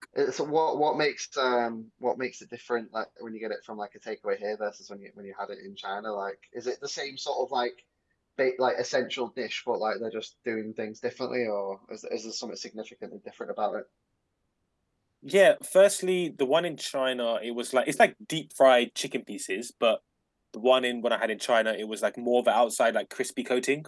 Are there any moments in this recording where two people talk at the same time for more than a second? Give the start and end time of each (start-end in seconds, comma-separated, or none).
none